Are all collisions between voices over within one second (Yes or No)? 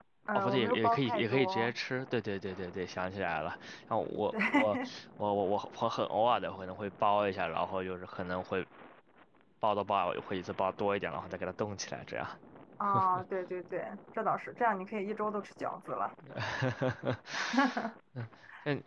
No